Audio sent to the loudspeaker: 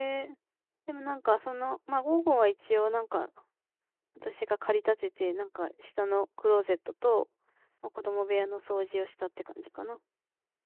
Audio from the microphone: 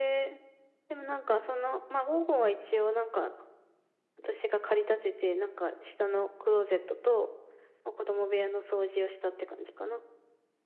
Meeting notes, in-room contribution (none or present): none